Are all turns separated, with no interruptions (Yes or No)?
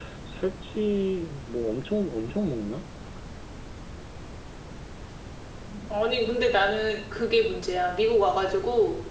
Yes